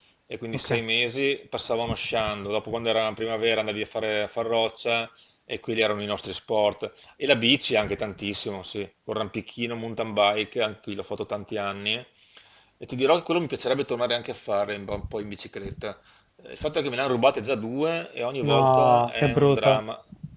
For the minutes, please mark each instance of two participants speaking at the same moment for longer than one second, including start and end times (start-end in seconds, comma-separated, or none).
18.4-19.8